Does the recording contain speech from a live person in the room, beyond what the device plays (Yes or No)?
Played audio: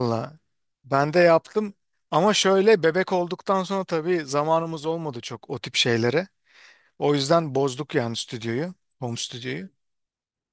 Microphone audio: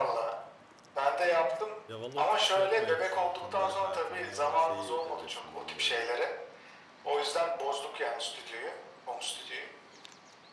Yes